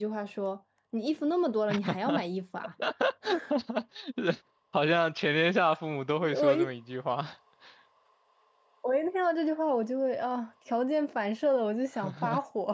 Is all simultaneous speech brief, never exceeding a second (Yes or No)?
Yes